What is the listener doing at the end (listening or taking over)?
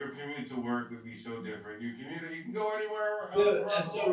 taking over